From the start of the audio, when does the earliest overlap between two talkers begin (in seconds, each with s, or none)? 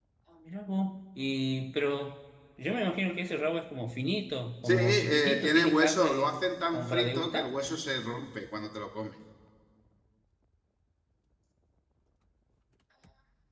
4.6 s